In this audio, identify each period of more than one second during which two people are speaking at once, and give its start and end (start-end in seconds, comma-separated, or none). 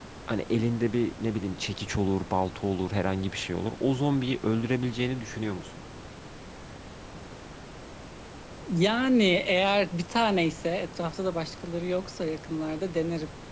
none